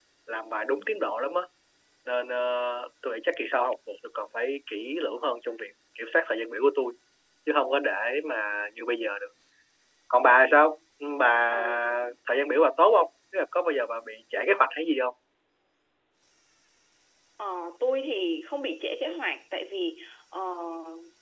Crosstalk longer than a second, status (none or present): none